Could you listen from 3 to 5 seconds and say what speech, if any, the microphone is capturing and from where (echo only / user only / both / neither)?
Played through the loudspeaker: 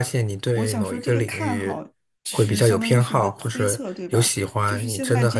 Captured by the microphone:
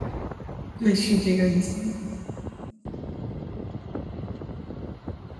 neither